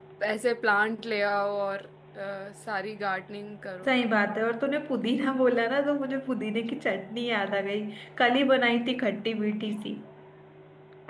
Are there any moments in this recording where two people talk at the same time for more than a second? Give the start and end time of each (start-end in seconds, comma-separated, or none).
none